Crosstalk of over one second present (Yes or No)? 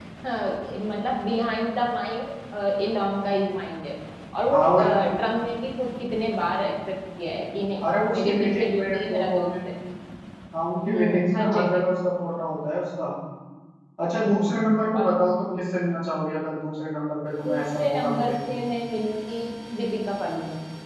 Yes